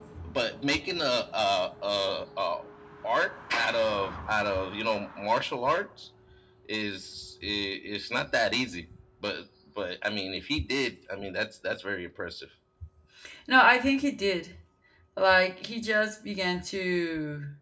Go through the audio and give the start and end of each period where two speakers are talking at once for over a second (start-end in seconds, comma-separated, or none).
none